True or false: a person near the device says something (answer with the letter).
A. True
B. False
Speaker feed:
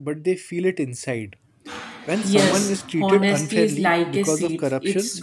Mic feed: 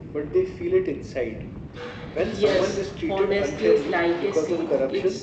B